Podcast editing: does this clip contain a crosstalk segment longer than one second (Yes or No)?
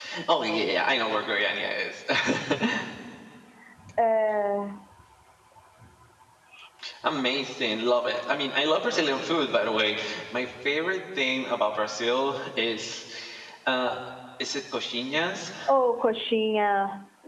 No